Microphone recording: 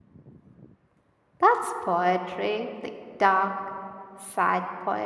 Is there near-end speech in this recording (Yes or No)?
Yes